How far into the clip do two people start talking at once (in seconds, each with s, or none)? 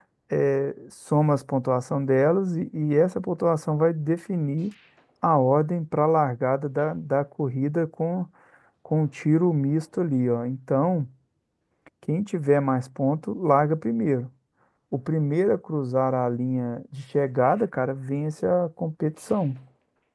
none